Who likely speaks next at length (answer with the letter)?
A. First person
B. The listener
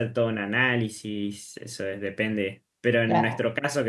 A